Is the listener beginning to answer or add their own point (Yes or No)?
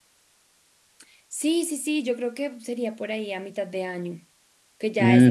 Yes